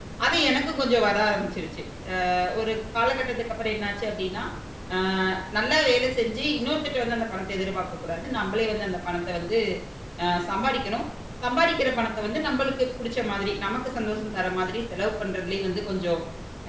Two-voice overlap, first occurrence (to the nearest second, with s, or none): none